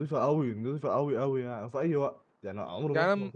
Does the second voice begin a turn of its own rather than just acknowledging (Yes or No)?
No